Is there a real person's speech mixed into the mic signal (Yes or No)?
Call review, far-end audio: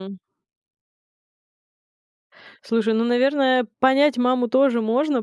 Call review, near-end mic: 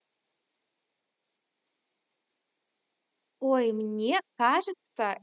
Yes